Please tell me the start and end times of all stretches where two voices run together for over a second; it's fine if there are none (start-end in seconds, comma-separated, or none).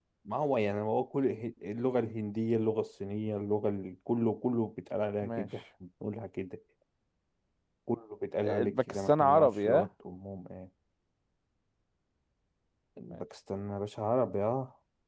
8.4-9.9